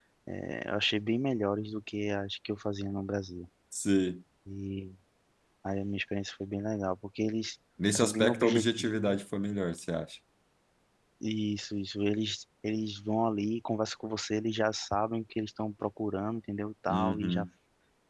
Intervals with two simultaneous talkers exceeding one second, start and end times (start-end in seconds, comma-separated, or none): 7.9-9.1